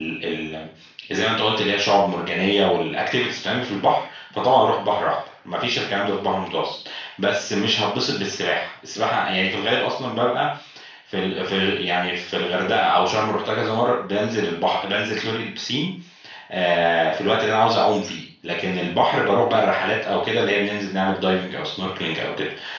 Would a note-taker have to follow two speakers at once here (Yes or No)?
No